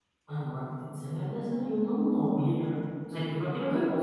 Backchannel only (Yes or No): No